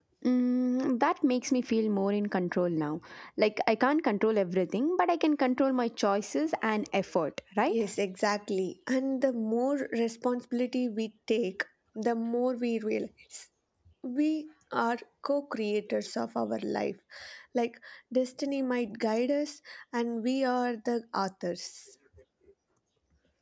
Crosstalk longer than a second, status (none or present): none